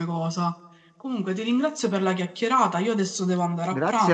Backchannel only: No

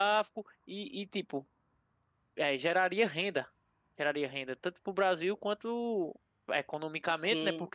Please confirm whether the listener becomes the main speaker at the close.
No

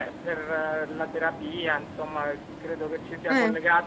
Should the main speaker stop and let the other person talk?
No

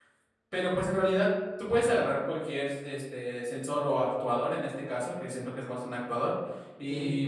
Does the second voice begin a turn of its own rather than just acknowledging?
No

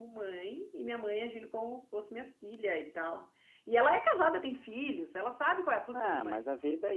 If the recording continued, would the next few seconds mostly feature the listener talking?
Yes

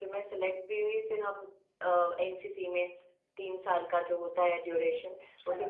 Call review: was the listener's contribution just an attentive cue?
Yes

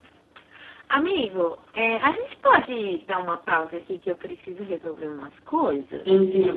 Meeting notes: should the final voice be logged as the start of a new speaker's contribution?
Yes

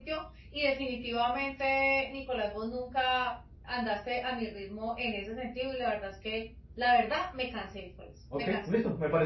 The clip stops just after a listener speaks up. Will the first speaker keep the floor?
No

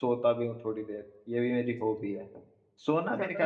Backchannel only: Yes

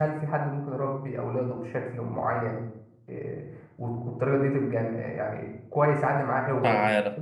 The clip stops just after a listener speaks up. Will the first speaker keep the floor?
Yes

